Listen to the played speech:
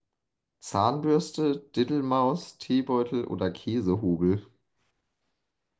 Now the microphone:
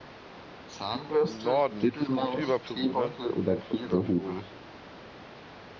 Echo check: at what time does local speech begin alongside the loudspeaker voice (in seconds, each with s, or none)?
1.2 s